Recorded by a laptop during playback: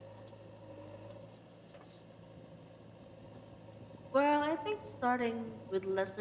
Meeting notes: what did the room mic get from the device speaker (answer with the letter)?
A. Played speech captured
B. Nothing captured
B